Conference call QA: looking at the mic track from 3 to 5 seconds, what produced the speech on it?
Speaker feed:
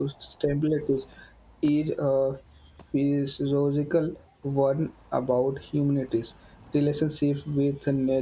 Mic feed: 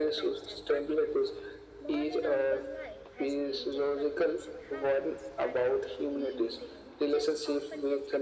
both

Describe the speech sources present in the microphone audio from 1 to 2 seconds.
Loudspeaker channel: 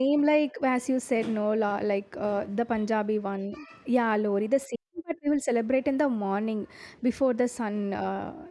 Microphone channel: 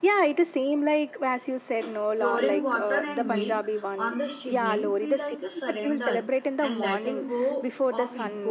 echo only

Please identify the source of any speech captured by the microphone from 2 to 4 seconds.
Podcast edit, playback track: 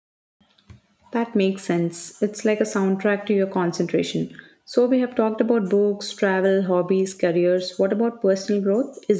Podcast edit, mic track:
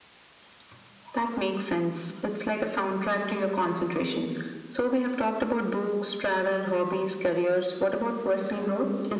echo only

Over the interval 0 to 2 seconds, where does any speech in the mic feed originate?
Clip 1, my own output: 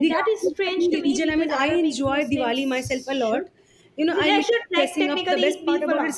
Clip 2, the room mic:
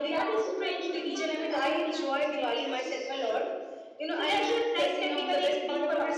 both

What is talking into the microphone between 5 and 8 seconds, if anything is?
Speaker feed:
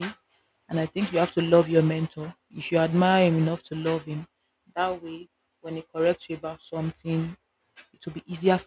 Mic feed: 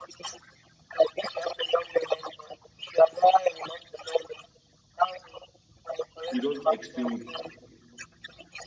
both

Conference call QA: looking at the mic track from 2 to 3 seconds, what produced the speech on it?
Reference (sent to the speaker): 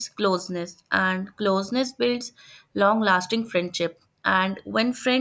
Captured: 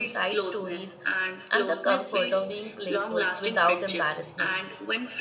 both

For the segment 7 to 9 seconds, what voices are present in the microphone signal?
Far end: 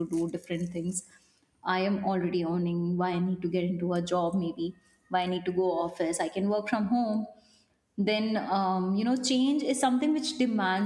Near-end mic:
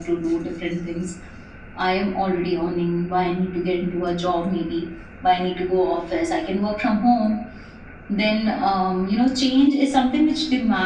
echo only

